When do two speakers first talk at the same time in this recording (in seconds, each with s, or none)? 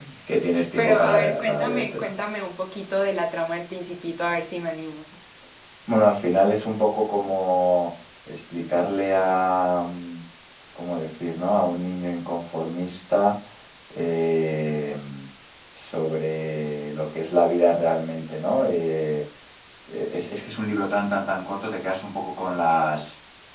0.8 s